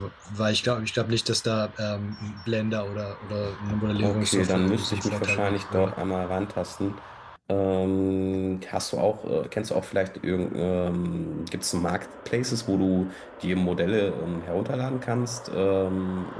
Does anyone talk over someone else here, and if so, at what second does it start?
4.0 s

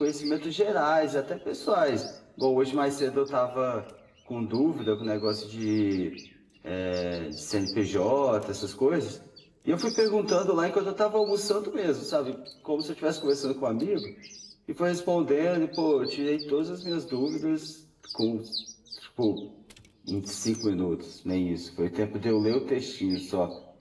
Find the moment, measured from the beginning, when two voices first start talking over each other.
none

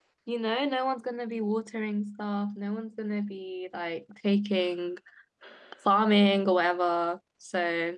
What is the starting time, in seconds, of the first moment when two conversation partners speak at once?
none

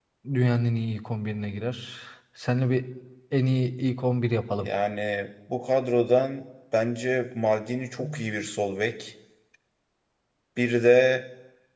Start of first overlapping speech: none

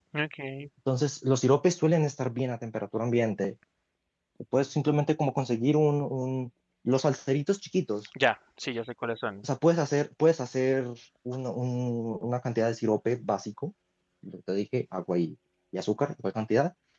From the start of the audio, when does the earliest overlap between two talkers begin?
none

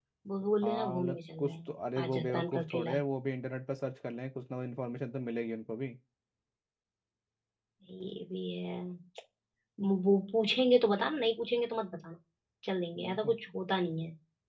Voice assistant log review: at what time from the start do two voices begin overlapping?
0.6 s

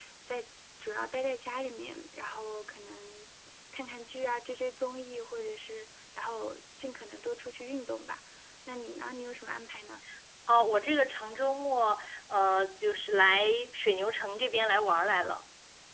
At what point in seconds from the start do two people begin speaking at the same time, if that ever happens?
none

